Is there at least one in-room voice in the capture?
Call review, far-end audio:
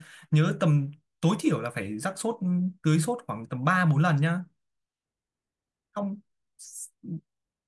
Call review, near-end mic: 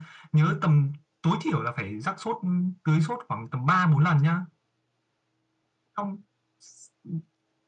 No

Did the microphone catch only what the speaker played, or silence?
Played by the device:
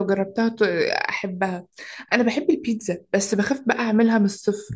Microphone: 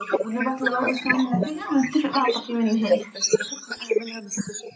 No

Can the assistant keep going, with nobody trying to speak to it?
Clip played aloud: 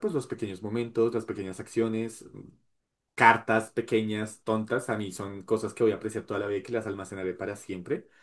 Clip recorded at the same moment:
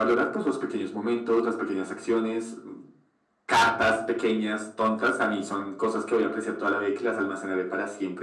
Yes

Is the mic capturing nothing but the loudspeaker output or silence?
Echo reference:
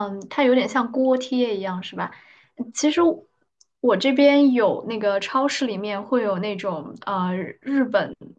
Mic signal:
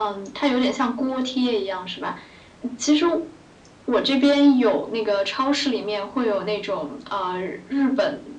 Yes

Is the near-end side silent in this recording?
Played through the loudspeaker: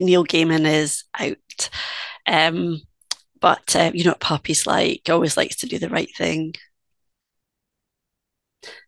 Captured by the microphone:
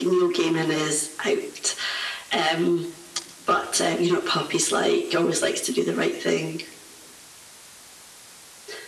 Yes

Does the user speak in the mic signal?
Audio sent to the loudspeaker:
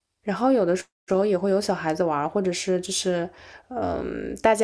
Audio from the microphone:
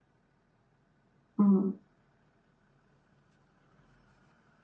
Yes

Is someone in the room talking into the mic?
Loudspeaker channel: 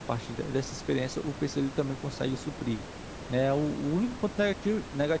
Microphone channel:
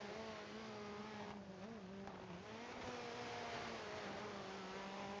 No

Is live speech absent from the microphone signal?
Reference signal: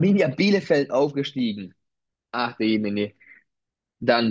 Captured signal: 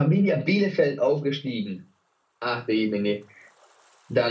Yes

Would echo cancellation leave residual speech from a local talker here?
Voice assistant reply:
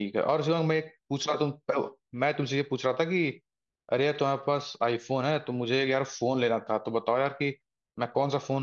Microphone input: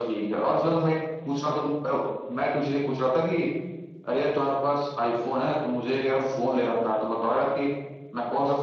No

